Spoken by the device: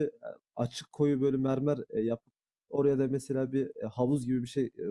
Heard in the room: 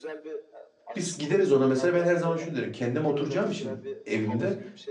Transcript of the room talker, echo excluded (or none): Biz gideriz ona mesela. Ben her zaman şunu derim. Kendim oturacağım için evimde.